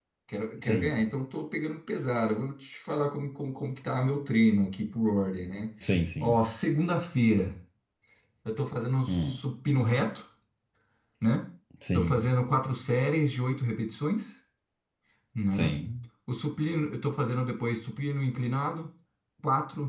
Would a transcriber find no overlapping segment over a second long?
Yes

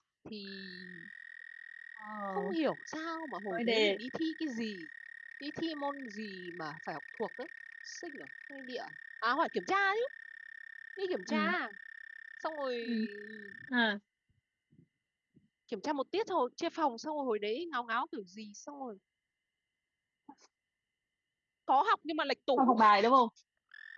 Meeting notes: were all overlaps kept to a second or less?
Yes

